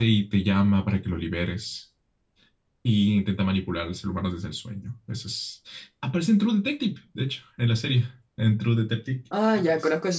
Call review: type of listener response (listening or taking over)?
taking over